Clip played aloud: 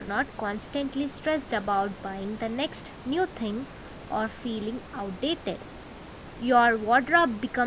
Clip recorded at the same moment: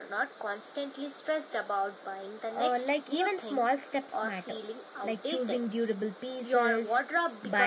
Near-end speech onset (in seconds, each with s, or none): 2.5 s